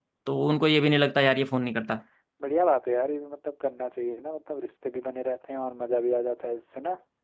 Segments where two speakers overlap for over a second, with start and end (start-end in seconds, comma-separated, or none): none